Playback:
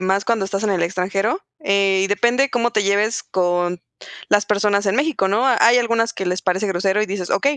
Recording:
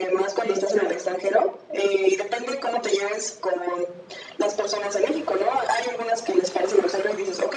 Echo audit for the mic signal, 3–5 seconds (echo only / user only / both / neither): echo only